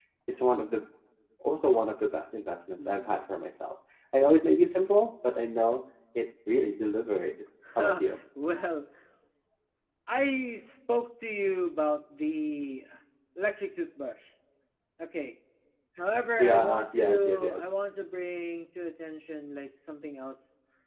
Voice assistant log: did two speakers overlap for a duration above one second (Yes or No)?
Yes